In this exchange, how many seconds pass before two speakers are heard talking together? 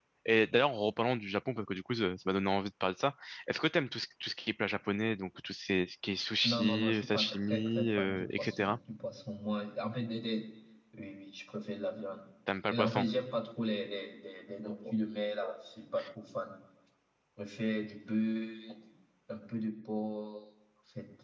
6.4 s

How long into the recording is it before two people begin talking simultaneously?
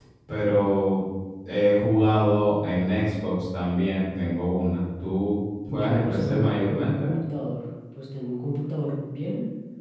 5.6 s

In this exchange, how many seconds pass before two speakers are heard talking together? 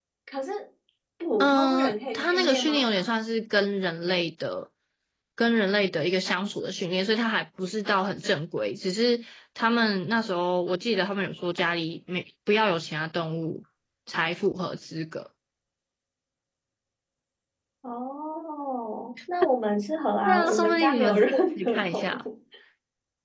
1.4 s

